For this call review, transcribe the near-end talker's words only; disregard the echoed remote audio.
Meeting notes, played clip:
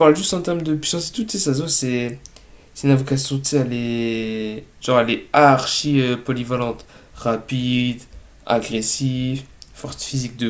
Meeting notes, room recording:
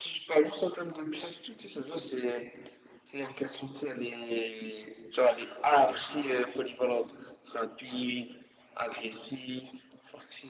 none

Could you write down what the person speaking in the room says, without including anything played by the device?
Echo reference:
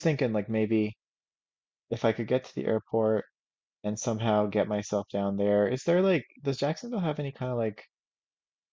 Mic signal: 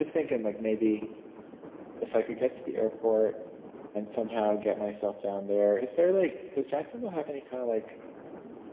none

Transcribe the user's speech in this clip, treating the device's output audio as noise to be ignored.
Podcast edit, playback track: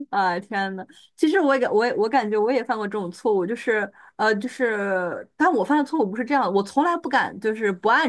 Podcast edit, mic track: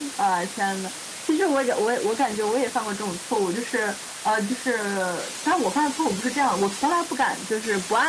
none

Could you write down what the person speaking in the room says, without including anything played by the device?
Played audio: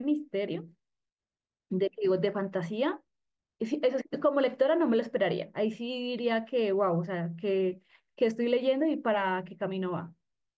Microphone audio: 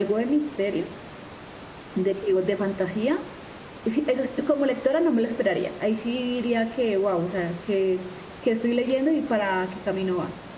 none

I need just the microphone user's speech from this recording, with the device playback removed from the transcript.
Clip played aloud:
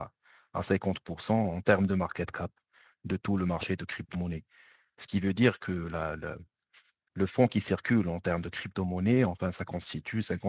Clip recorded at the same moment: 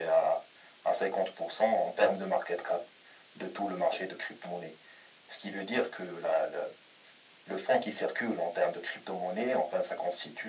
none

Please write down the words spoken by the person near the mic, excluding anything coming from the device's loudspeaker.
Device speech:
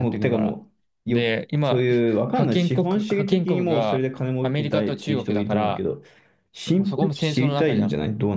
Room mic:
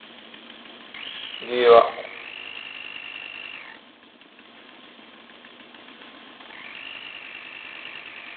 理由は。

